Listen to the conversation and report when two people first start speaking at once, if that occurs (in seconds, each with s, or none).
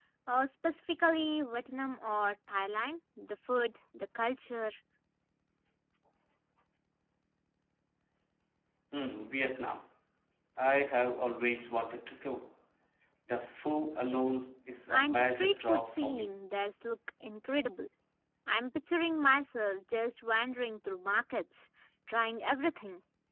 14.9 s